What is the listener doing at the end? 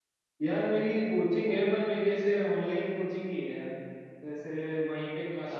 listening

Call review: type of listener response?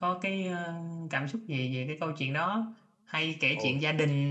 listening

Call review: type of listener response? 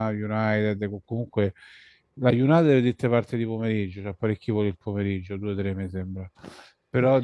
listening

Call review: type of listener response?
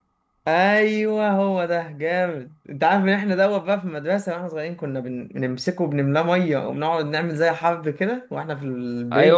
taking over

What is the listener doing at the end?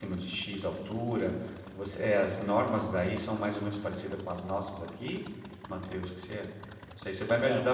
listening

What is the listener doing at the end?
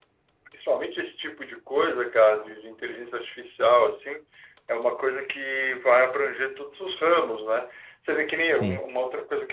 listening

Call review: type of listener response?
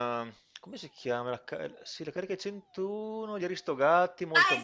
taking over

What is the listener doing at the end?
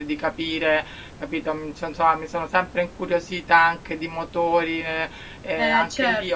listening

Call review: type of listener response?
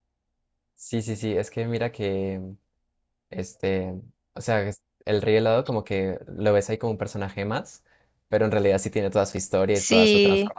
taking over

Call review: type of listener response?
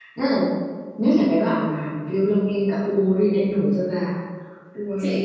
taking over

